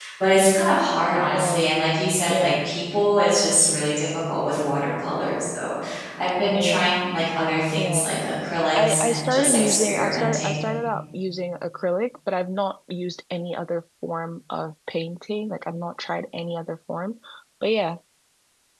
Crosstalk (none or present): present